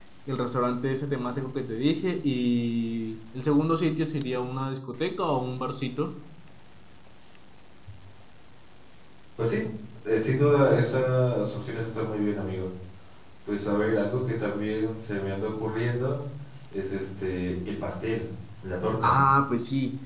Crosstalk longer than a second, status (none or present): none